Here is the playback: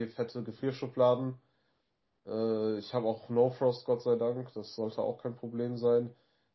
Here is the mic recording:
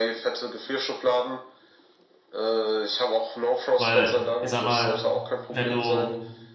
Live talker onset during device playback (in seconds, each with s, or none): 3.8 s